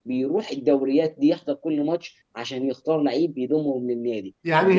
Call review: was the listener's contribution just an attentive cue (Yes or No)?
No